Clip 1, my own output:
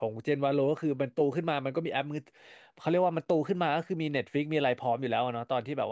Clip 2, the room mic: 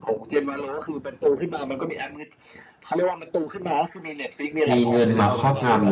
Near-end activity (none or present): present